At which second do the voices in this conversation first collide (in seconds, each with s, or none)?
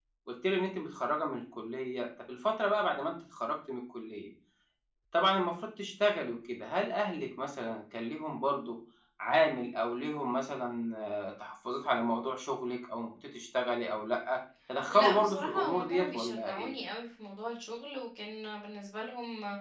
14.9 s